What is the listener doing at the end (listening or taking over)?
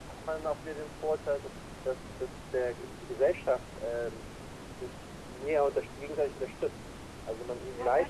listening